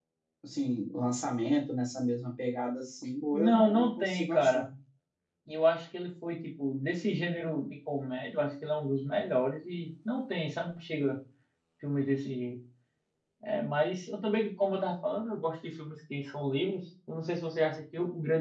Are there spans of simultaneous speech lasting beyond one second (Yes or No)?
Yes